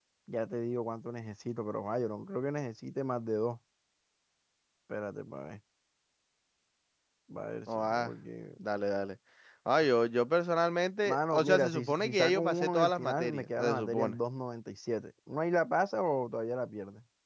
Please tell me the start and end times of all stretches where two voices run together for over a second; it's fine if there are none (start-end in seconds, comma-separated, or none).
11.1-14.2